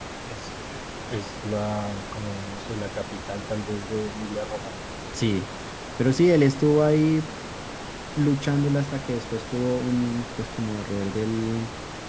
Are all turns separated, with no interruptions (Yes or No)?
Yes